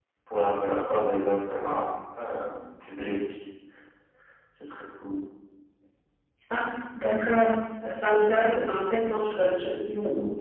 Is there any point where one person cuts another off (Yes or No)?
No